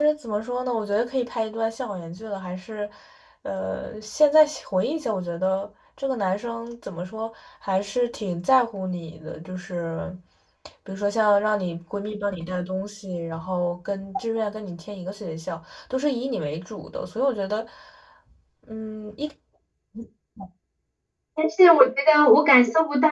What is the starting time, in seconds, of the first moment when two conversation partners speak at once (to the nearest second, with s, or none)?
none